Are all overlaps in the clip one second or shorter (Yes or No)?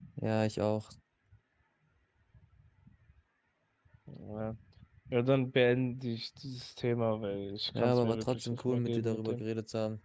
No